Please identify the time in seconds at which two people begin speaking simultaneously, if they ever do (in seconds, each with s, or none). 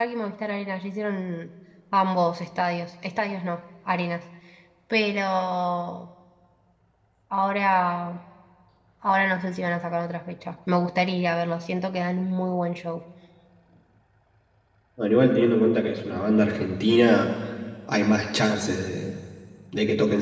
none